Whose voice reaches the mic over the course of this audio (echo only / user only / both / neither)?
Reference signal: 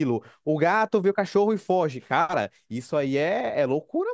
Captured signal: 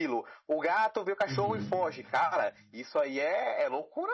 both